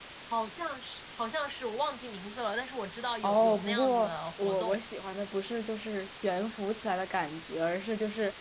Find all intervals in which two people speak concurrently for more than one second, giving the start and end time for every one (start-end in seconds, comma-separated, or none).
3.2-4.8